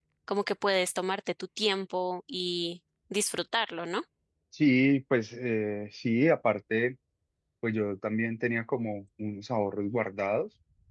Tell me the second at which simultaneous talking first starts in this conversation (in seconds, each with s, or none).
none